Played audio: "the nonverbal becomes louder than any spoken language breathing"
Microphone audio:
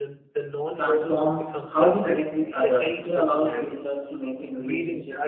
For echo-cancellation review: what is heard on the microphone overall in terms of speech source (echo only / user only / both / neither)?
both